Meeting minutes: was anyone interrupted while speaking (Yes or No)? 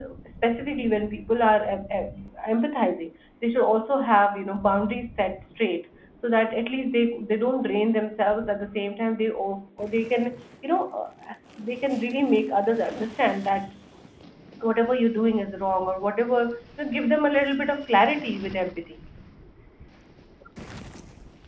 No